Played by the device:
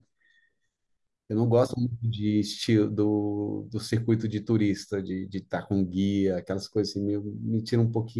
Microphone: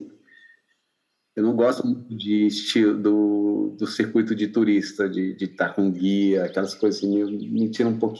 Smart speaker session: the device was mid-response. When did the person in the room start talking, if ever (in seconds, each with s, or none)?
none